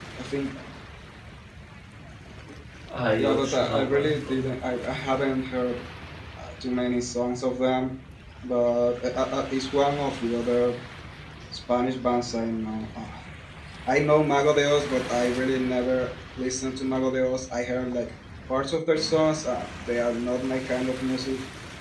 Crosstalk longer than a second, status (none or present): present